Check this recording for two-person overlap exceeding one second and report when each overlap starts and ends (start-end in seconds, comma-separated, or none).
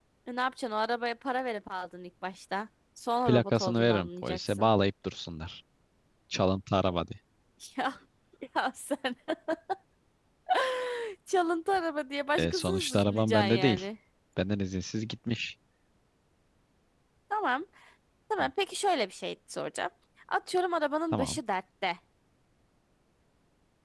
3.3-4.7, 12.4-13.8